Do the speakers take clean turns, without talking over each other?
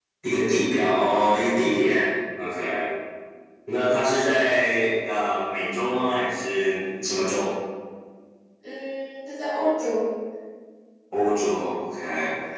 Yes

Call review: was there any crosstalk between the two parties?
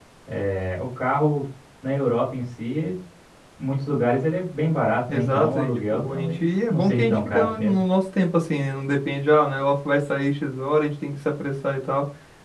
Yes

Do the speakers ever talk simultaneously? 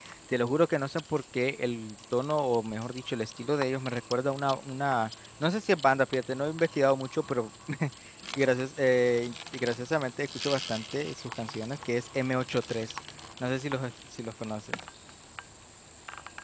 No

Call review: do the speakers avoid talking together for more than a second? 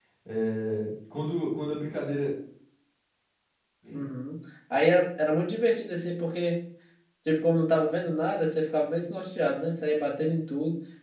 Yes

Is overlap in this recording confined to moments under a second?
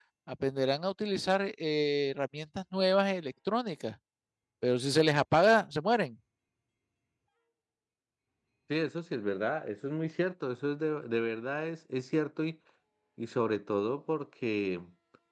Yes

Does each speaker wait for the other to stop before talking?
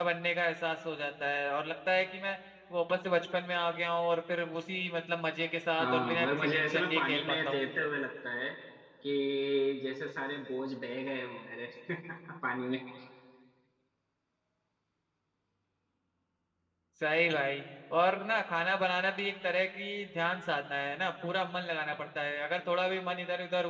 No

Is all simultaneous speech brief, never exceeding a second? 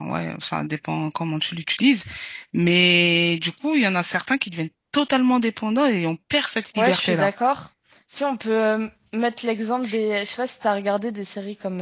Yes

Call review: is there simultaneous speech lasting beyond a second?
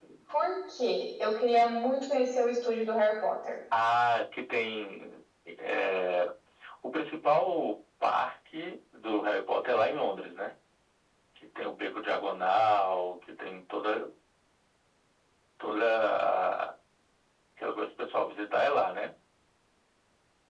No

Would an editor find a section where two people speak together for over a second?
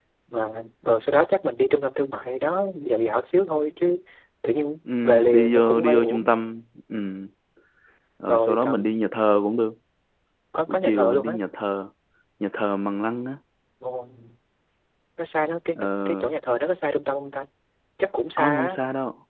Yes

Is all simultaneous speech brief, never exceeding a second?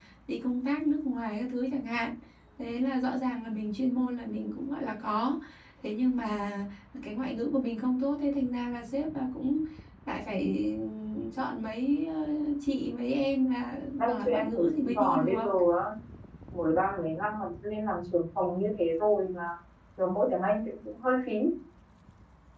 No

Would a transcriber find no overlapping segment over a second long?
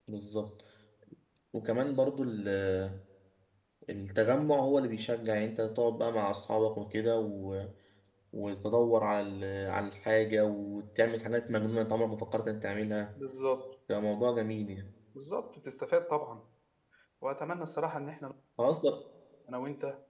Yes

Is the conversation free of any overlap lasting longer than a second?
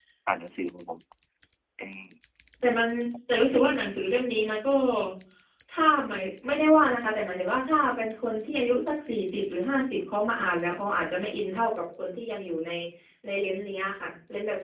Yes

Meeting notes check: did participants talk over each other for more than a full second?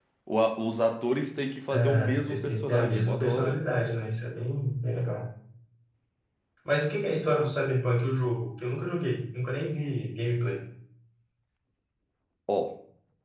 Yes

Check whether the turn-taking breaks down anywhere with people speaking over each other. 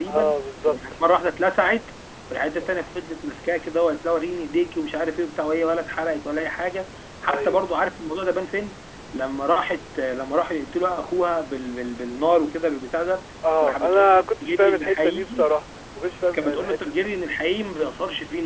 Yes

